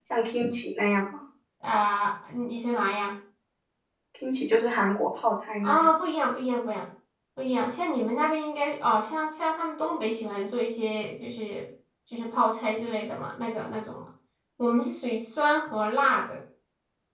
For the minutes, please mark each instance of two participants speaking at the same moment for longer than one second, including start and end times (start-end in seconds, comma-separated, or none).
none